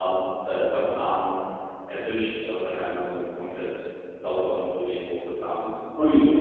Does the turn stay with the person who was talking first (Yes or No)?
No